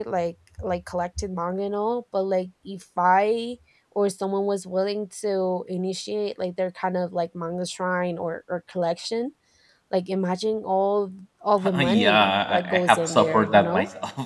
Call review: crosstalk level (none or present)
present